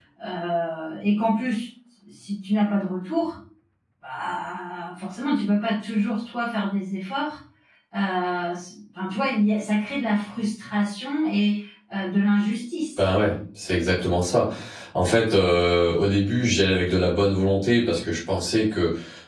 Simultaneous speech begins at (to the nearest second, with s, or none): none